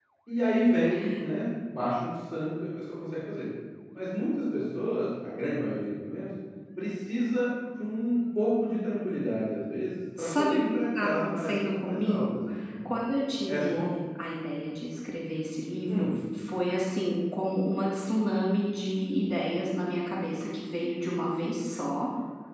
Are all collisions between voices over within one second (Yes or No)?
No